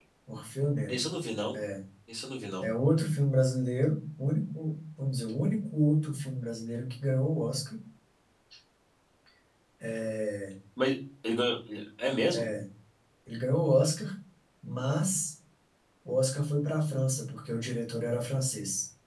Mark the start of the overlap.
none

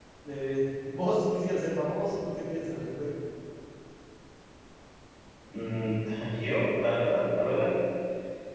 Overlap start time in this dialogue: none

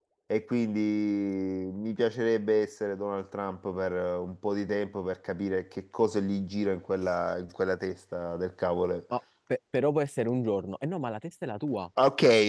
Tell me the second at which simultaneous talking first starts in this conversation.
none

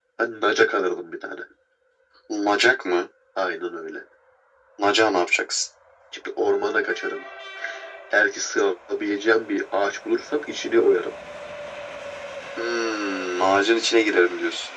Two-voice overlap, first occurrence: none

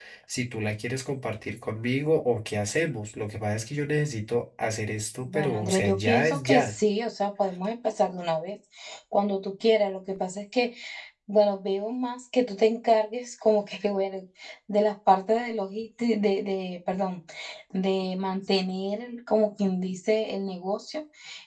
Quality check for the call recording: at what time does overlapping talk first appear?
5.2 s

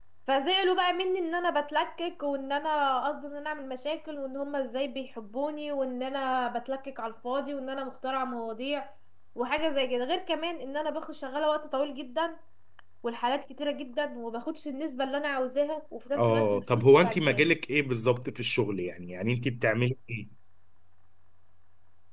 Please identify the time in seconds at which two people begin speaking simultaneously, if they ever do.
16.1 s

